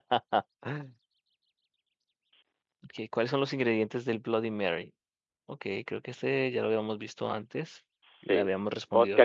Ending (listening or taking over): taking over